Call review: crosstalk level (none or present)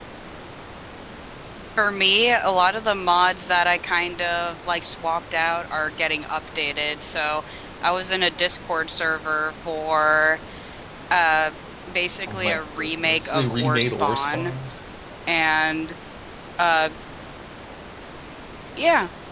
present